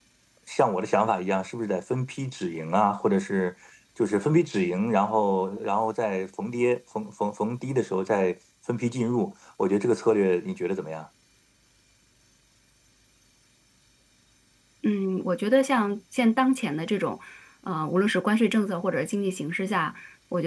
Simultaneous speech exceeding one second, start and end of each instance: none

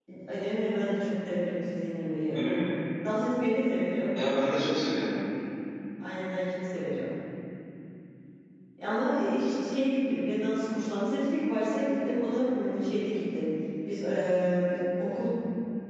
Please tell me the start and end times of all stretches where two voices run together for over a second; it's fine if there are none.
none

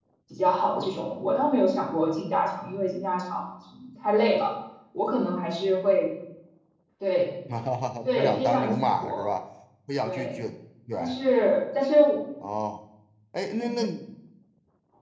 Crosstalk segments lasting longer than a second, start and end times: 8.0-9.3

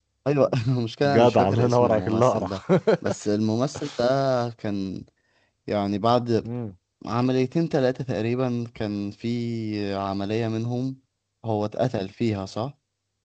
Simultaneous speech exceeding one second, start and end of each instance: 1.0-2.5

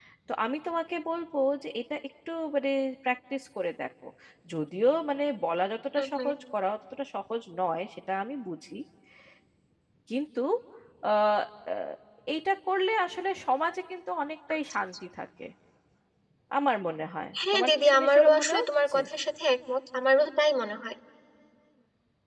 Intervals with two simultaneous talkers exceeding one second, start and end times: 17.5-19.0

